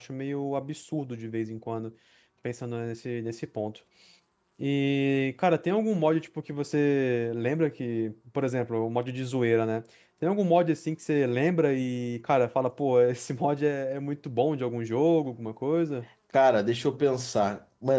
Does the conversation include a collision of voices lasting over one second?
No

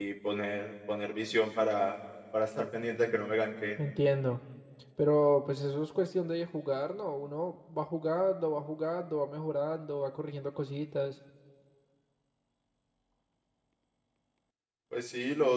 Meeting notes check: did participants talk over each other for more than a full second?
No

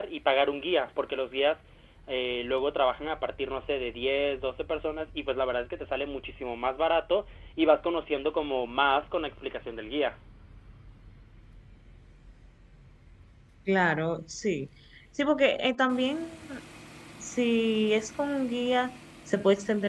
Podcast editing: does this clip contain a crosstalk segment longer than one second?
No

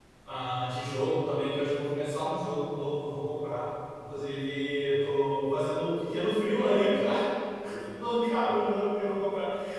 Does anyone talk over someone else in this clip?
No

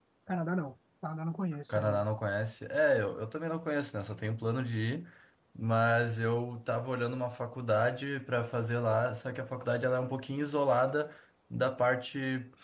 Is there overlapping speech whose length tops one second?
No

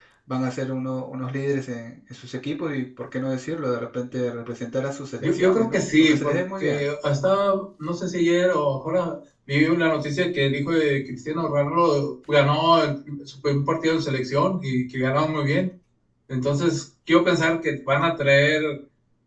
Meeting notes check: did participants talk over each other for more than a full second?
Yes, from 5.2 s

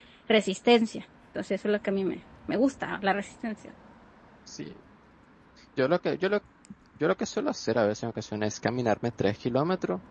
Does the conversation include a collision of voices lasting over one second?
No

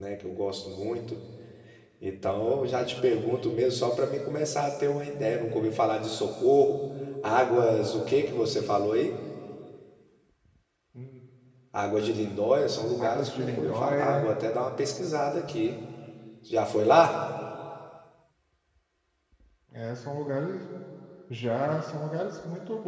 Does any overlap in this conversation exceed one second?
Yes, from 13.0 s

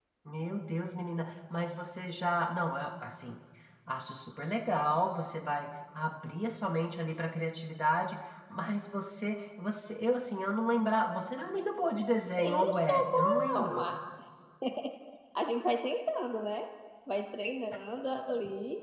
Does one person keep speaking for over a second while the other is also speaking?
Yes, from 12.1 s

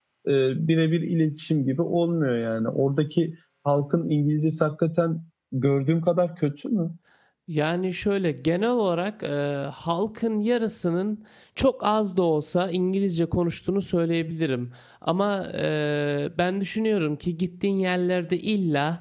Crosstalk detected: No

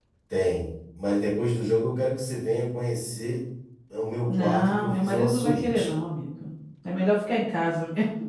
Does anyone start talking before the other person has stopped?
Yes, from 4.3 s

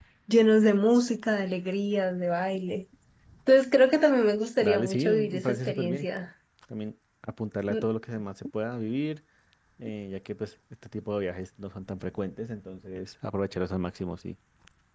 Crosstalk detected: Yes, from 4.6 s

